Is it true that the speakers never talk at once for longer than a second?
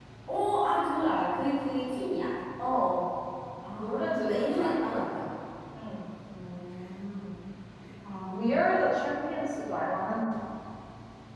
No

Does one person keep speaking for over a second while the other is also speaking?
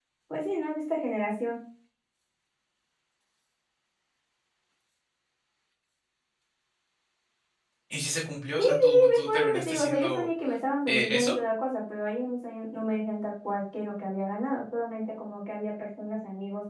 Yes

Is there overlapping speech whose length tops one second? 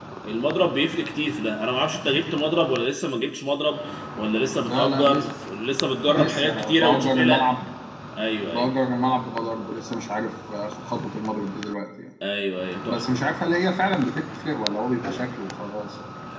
Yes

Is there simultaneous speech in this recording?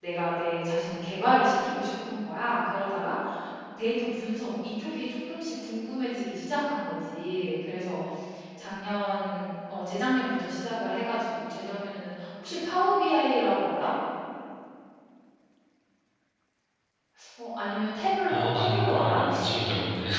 Yes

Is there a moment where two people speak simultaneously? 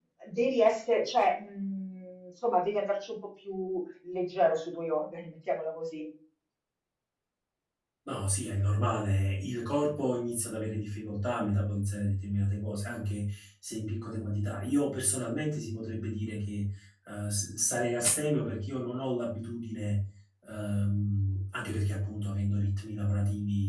No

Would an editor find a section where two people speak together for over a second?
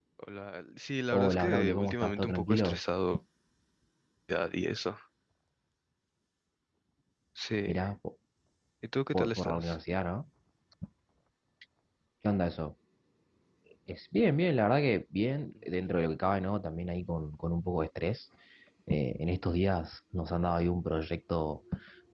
Yes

